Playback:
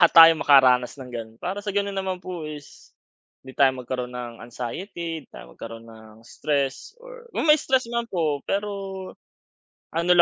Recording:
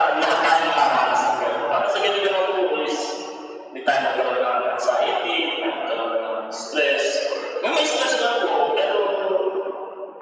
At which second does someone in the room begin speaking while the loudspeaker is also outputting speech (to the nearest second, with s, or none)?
none